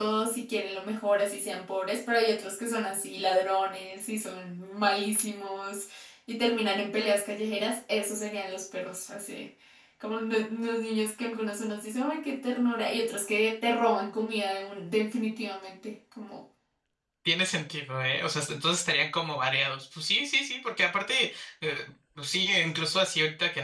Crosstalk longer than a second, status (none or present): none